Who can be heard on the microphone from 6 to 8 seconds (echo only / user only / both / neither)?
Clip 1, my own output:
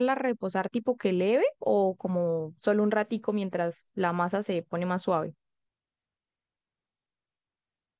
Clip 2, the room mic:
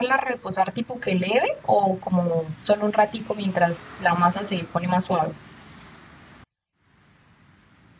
neither